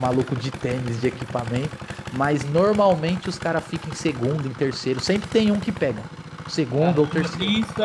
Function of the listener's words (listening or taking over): taking over